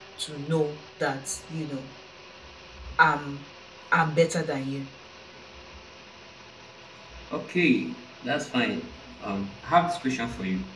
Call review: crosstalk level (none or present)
none